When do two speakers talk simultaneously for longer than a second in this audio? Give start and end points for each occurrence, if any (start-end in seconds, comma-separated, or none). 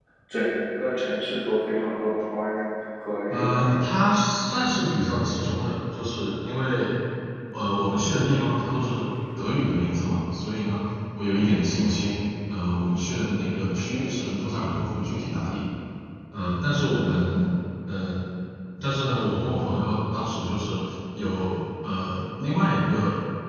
none